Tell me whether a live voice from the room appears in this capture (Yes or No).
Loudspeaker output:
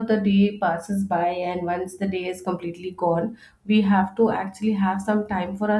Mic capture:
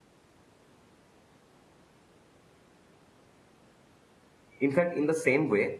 Yes